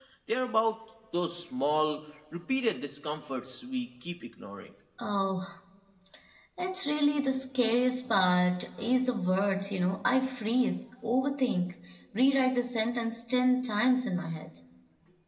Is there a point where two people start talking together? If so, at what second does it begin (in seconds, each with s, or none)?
none